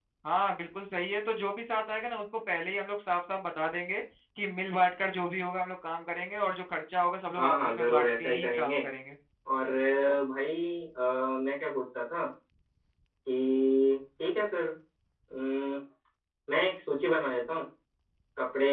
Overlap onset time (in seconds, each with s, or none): 7.3 s